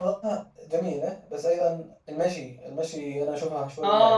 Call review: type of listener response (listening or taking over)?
taking over